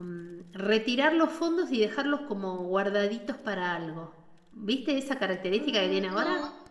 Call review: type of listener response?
taking over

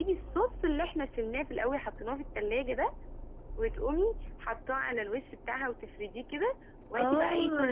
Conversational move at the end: taking over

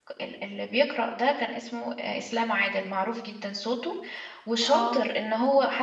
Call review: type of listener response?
listening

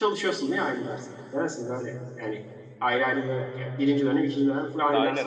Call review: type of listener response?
taking over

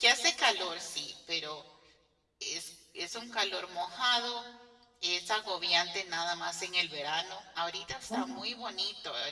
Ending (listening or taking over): listening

